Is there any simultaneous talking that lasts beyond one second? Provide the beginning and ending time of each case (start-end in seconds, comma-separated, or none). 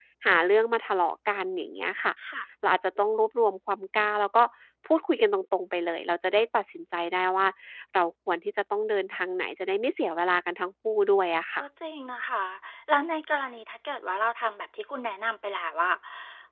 none